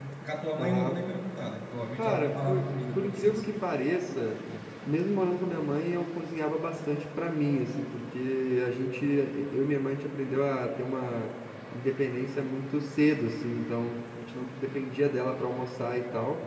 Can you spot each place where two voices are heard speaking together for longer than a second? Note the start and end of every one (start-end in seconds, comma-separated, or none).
2.0-3.5